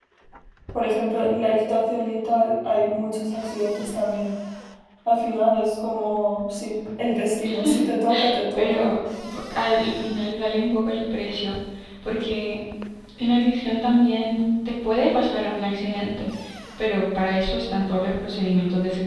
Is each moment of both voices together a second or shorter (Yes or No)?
Yes